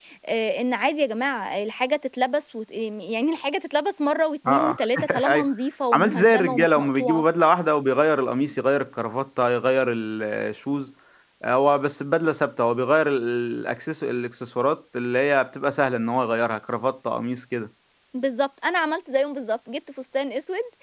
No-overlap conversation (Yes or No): No